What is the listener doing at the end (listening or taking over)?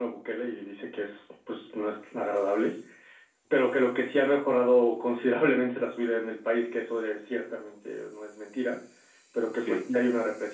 listening